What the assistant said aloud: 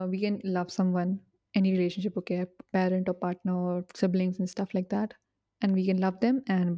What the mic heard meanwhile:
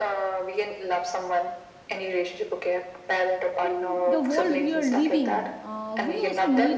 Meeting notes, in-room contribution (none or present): present